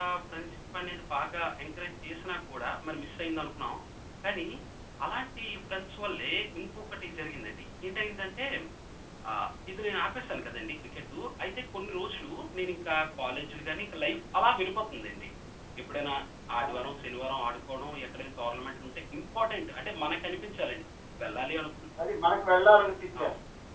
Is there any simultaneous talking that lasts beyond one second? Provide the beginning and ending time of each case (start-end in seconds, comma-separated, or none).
none